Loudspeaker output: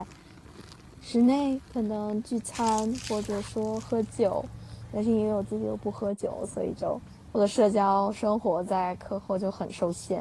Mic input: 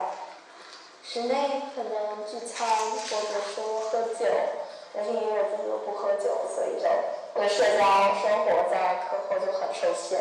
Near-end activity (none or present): none